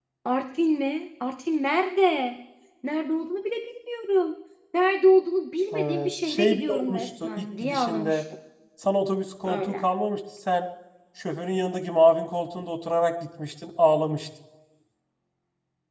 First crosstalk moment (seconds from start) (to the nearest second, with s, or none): 6 s